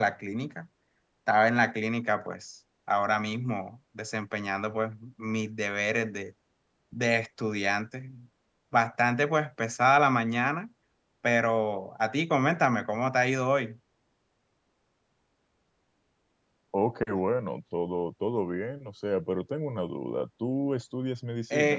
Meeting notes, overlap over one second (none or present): none